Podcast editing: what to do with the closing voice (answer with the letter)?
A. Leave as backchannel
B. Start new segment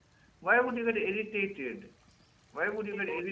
A